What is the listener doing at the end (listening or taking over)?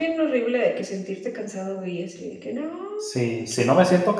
taking over